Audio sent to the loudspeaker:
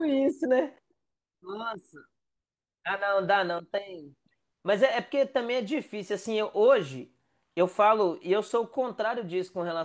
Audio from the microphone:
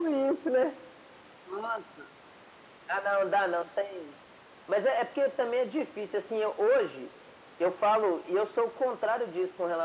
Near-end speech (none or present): none